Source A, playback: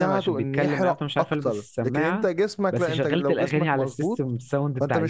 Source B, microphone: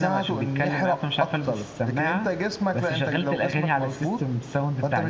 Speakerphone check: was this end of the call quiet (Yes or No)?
Yes